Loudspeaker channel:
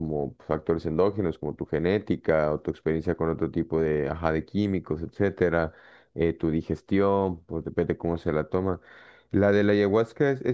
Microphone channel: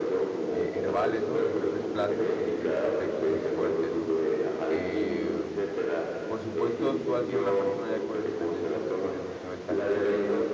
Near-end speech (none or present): present